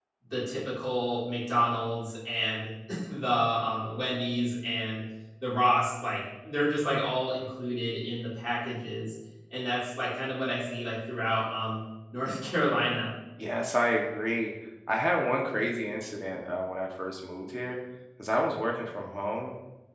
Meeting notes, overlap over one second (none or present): none